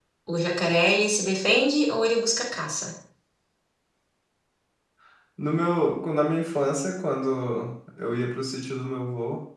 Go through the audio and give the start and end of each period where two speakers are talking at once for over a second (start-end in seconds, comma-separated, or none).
none